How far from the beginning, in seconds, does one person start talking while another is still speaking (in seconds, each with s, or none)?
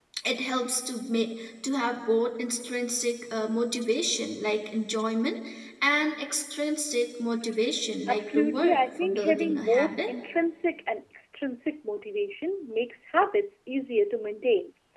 8.1 s